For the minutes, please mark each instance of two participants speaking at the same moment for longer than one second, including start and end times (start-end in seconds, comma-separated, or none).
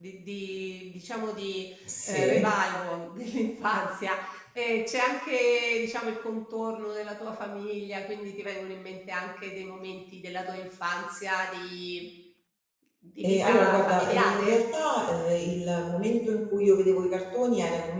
13.2-14.6